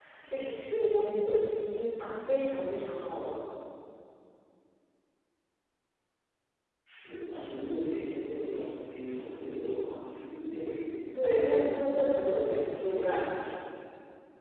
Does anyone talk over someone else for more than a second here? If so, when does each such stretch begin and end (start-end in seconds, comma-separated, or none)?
11.1-13.4